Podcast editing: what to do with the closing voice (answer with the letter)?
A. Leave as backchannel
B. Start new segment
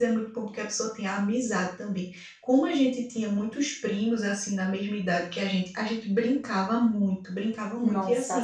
A